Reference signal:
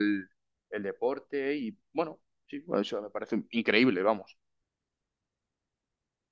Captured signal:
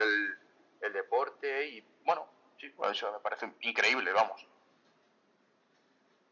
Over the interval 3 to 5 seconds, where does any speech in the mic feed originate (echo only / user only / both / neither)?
echo only